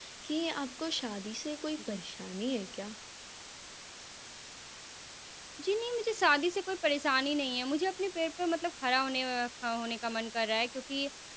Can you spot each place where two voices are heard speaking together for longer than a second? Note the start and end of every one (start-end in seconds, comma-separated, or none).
none